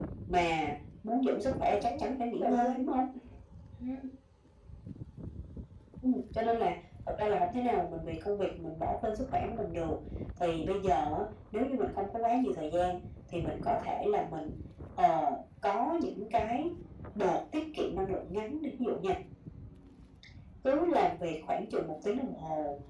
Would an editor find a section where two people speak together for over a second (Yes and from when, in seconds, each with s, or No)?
Yes, from 1.5 s